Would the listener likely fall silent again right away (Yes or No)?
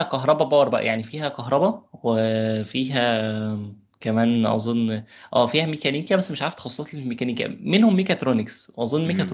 Yes